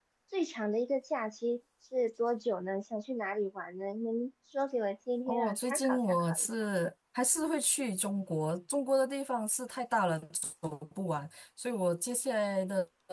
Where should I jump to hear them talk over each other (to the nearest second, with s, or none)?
5 s